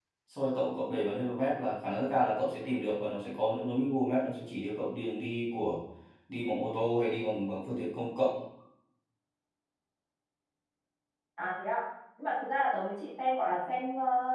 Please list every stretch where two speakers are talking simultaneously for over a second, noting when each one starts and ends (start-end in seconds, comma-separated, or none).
none